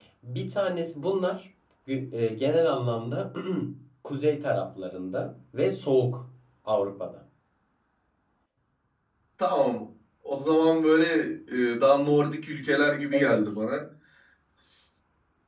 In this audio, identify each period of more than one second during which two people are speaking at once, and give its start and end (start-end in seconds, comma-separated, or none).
none